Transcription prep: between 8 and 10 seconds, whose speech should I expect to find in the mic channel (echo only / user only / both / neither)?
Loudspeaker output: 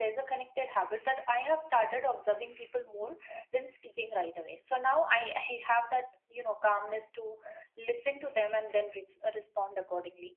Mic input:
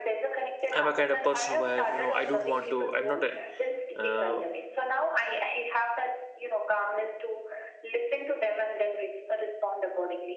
echo only